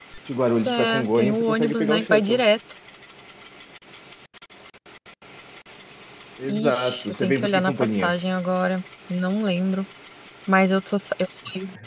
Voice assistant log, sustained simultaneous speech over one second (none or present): present